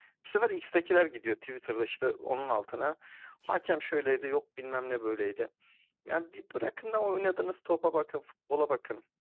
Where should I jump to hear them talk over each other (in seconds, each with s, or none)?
none